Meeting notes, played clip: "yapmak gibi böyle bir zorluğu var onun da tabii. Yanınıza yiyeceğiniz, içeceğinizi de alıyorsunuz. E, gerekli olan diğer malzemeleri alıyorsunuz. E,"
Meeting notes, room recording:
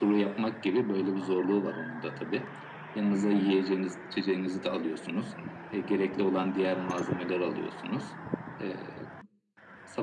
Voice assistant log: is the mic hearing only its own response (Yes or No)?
Yes